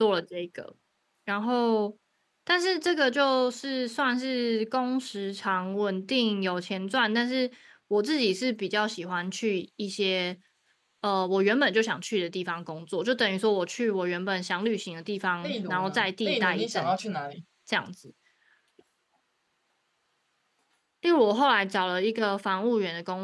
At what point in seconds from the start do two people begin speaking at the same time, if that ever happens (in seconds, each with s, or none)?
15.4 s